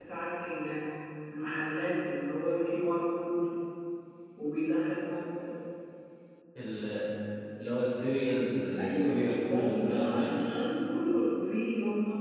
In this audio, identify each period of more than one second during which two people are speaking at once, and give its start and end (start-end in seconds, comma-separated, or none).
8.8-10.3